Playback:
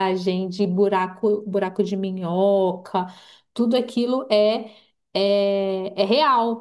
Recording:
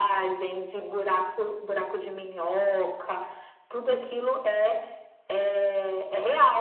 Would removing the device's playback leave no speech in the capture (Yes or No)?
Yes